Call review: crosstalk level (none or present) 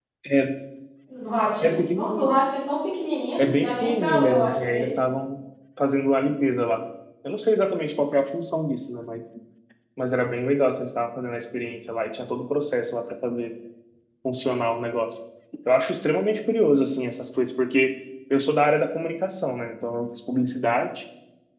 present